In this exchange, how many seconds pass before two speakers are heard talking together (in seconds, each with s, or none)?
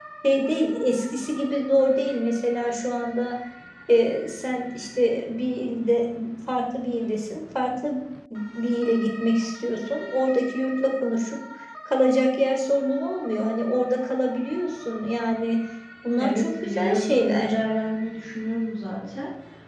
16.2 s